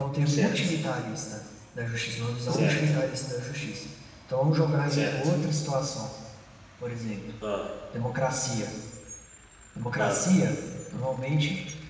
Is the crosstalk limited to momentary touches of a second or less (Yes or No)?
Yes